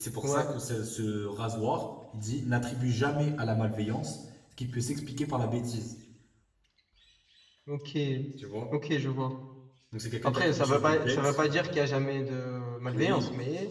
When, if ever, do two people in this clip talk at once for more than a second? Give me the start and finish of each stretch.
10.2-11.7

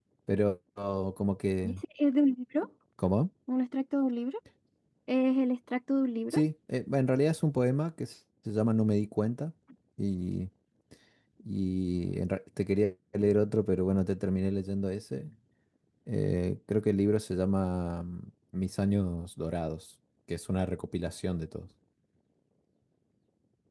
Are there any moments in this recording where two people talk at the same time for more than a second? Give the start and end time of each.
none

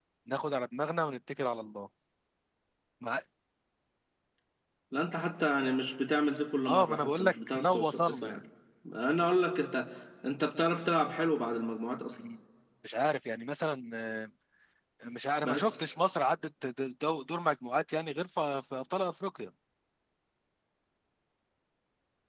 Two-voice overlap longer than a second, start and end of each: 6.7-8.4

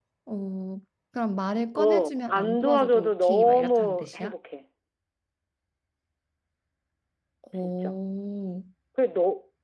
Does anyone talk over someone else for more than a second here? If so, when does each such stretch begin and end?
1.8-4.3

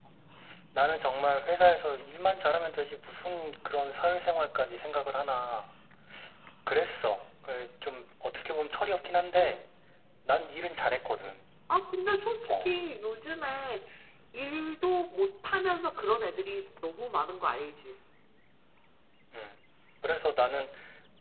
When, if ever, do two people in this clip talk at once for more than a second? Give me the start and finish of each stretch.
none

